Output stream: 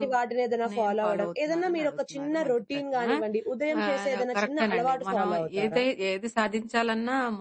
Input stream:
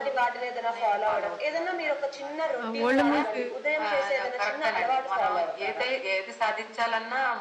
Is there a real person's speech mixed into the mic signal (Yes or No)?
Yes